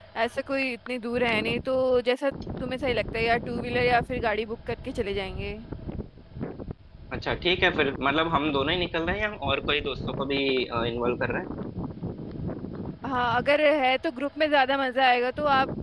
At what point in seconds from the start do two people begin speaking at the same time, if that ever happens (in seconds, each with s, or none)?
none